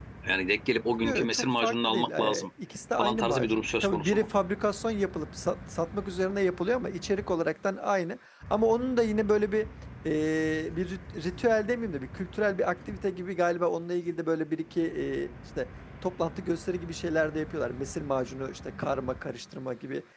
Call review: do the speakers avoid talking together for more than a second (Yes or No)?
No